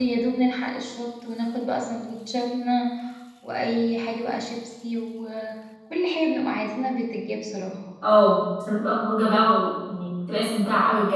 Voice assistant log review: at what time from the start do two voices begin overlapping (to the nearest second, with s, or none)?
none